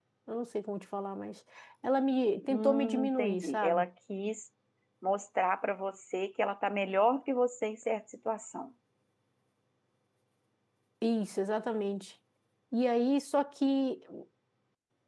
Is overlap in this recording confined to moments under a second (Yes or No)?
No